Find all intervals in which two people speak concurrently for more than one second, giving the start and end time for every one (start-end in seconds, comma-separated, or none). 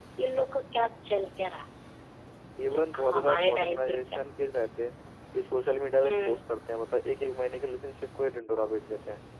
2.6-4.0